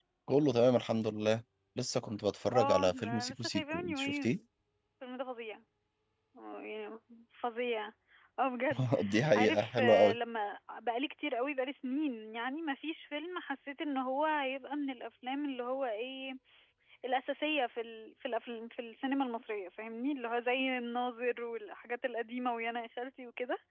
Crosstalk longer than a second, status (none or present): present